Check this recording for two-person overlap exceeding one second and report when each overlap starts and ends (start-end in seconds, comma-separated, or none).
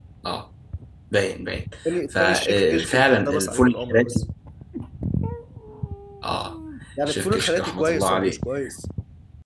2.1-4.2, 7.1-8.4